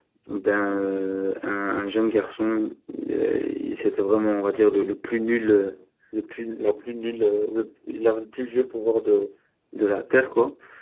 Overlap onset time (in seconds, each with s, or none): none